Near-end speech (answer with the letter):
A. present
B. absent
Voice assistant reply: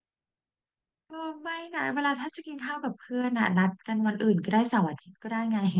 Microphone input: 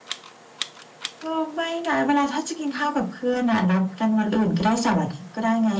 B